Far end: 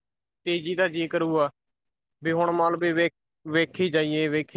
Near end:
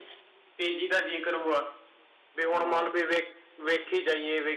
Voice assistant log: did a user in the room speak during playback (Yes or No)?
Yes